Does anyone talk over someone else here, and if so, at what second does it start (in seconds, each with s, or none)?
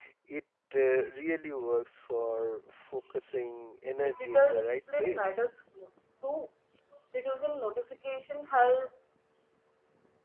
4.0 s